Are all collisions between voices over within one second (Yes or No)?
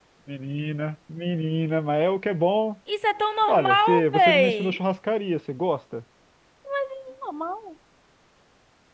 No